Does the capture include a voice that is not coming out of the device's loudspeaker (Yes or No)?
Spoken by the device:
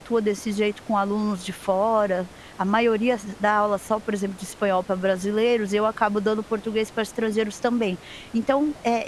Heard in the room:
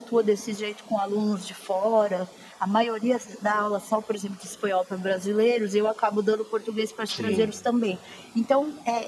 Yes